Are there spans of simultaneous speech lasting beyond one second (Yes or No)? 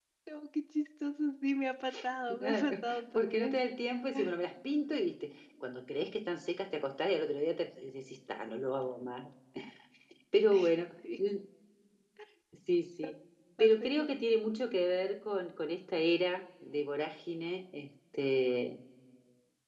Yes